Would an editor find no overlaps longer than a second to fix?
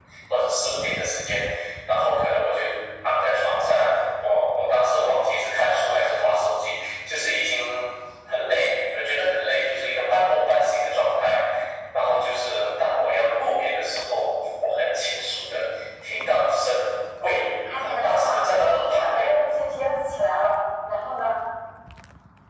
No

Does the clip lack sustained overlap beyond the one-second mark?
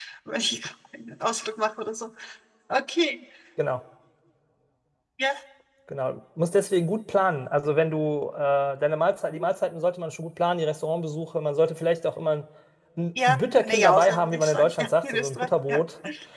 No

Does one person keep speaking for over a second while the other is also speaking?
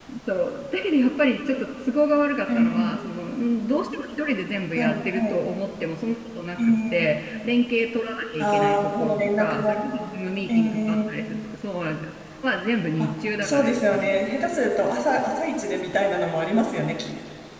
Yes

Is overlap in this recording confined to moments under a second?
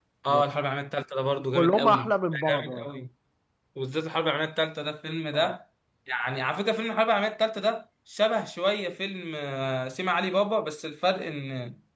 No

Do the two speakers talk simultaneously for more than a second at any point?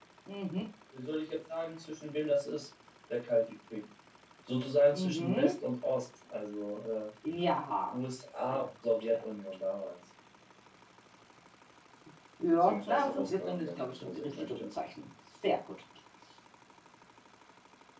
Yes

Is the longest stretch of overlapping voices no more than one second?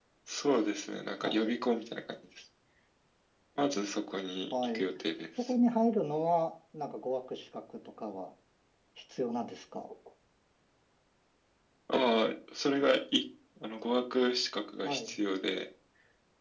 Yes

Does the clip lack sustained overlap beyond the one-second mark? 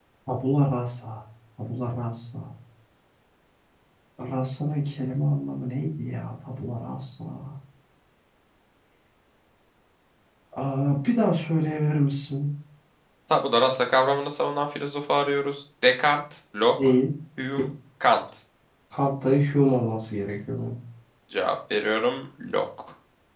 Yes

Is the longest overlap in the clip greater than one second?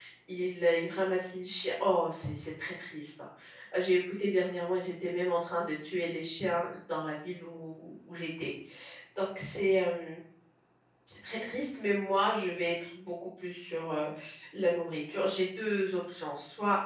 No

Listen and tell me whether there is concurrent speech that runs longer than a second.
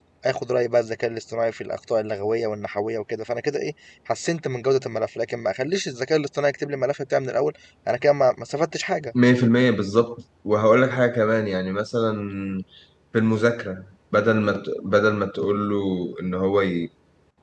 No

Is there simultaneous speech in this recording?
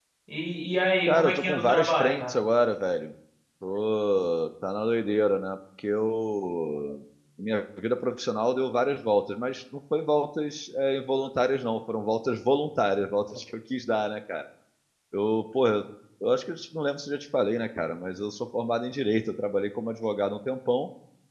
Yes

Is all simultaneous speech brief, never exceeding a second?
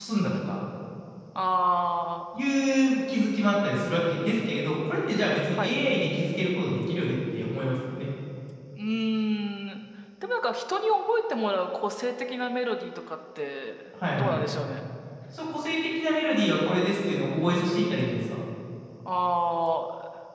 Yes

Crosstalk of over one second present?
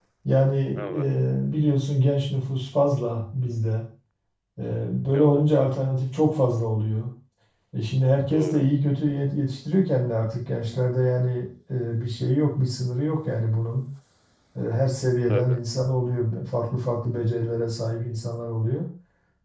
No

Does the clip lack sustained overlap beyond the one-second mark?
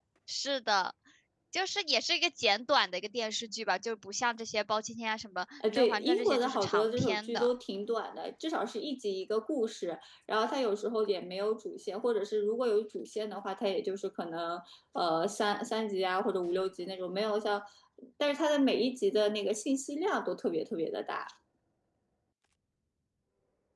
No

